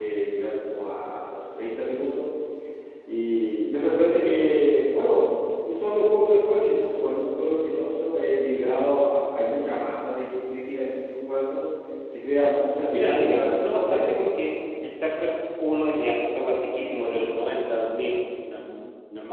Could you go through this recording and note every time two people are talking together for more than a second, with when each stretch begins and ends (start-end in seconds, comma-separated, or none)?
12.9-14.4